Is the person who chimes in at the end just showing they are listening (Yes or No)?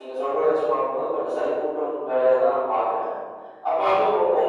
Yes